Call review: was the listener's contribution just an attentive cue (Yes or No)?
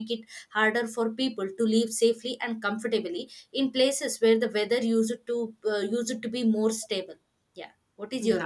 No